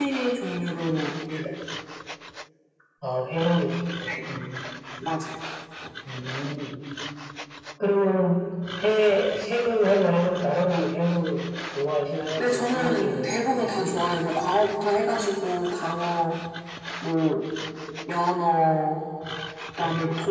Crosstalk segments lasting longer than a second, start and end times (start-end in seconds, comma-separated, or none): 12.4-14.0